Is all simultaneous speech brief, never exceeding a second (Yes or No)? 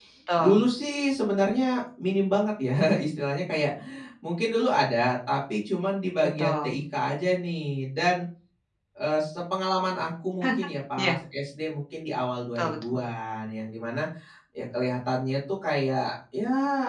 Yes